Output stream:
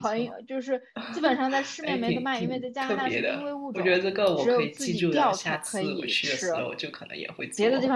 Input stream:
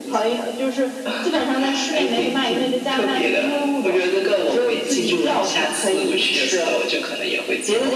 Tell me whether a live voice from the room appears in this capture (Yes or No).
No